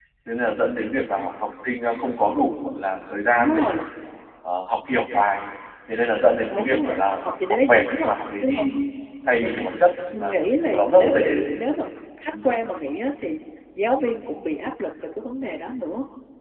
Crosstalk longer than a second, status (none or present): present